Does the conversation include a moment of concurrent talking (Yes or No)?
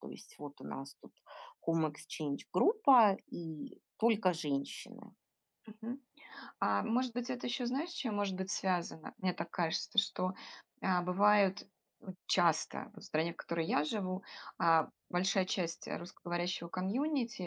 No